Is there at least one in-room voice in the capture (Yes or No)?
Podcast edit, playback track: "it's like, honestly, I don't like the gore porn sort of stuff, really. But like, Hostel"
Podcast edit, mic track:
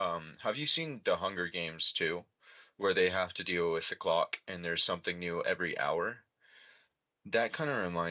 Yes